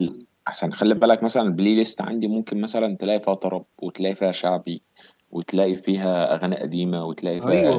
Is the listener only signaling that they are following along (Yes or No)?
No